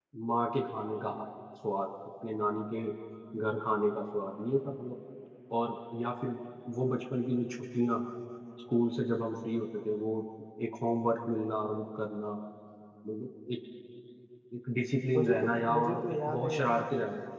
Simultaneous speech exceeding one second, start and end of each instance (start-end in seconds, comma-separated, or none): 15.1-16.8